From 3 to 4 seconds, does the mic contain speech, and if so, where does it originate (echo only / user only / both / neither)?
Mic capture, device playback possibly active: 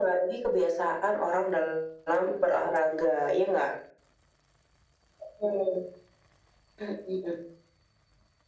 echo only